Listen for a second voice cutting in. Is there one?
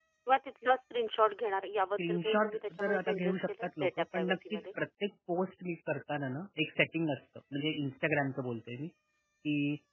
Yes, from 1.8 s

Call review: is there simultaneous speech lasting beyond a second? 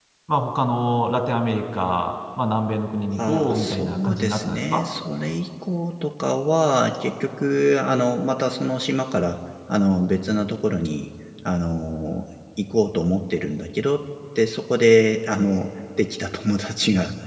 Yes, from 3.2 s

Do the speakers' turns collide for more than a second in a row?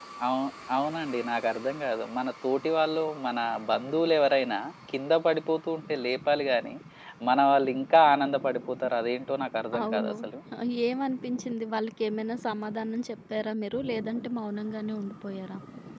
No

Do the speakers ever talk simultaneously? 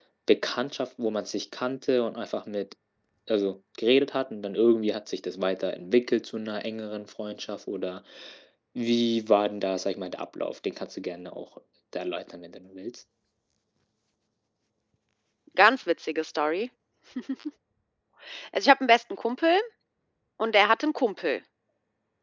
No

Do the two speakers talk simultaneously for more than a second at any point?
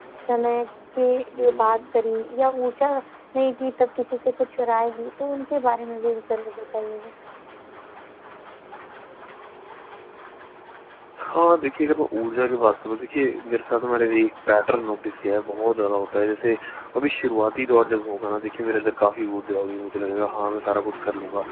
No

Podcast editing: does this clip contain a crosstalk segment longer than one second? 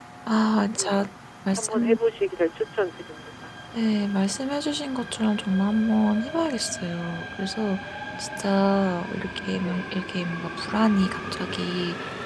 No

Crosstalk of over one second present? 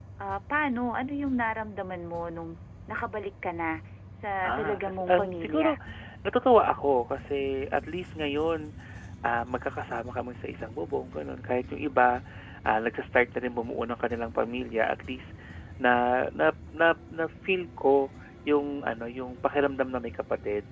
Yes, from 4.4 s

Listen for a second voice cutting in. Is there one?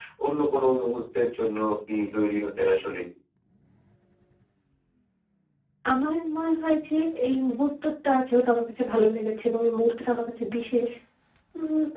No

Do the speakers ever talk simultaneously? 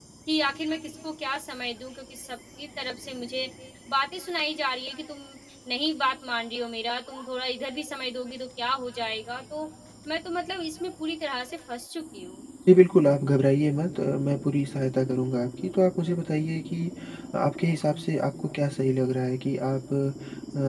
No

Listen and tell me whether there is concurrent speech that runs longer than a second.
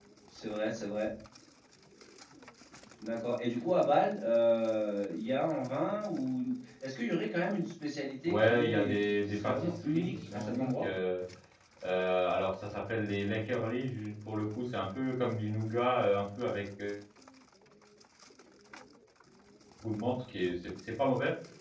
Yes, from 8.3 s

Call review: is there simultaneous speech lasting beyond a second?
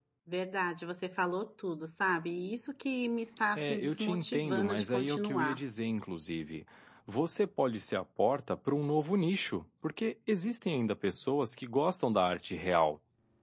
Yes, from 3.6 s

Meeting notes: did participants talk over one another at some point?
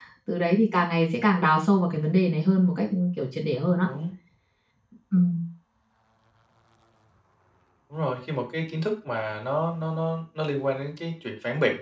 No

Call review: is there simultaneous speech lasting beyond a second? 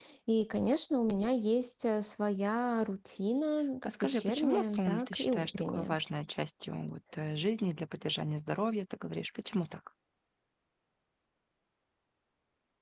Yes, from 3.8 s

